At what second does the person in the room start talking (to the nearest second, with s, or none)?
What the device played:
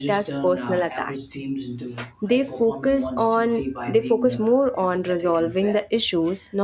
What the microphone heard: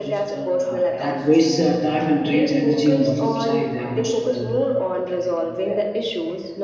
1 s